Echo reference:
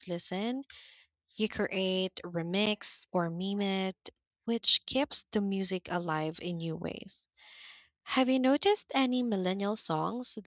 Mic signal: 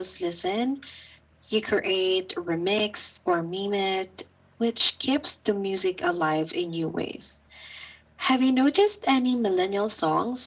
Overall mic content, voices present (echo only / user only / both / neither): echo only